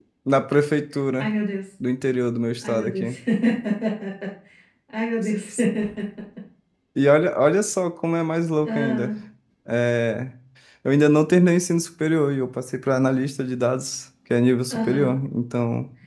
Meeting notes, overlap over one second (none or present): none